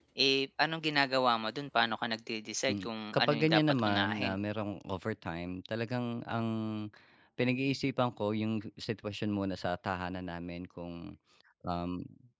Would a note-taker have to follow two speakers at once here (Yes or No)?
Yes